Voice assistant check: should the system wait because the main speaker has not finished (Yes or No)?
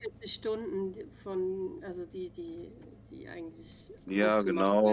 No